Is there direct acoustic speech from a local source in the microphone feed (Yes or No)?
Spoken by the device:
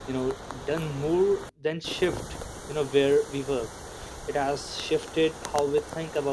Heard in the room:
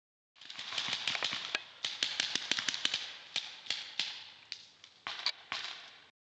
No